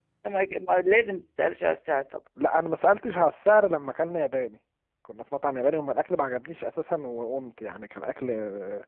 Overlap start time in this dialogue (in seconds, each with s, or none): none